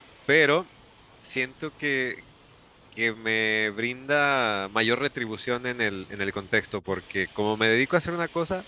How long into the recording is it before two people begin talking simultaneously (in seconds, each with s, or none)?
none